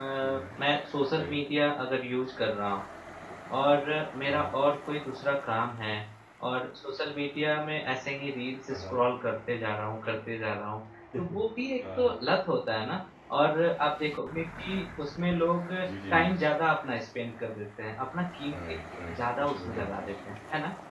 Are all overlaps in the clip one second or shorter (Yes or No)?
No